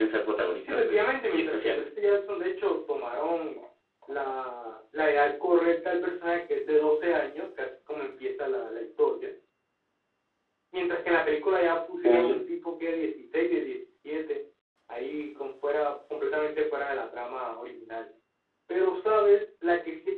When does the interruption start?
0.7 s

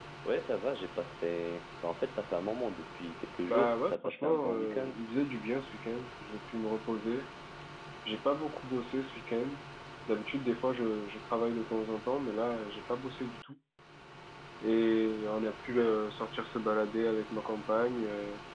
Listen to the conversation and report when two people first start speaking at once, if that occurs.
3.5 s

